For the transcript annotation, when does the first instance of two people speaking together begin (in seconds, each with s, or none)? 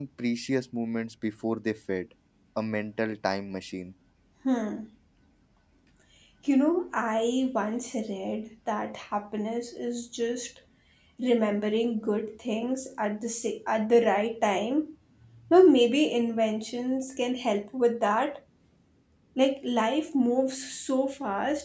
none